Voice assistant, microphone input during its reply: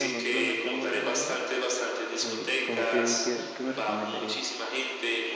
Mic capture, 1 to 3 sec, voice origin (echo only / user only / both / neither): both